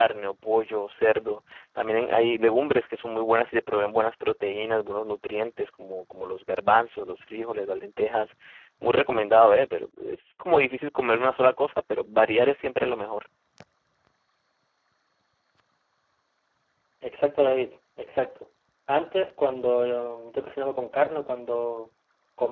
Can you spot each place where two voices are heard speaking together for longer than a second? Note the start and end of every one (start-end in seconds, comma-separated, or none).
none